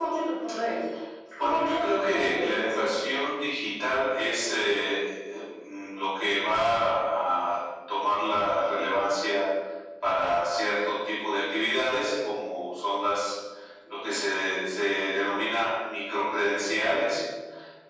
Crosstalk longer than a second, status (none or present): present